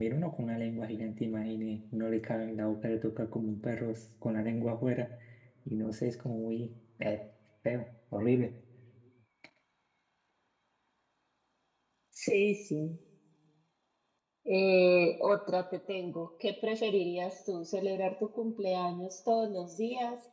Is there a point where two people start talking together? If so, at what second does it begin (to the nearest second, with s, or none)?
none